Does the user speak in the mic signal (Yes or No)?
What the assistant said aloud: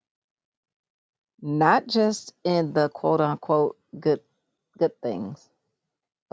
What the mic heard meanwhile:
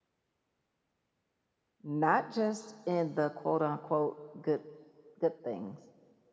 No